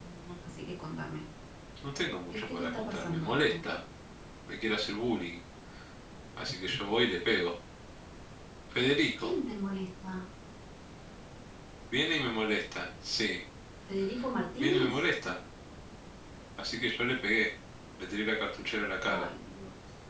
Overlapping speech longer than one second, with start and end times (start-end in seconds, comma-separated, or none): 2.3-3.6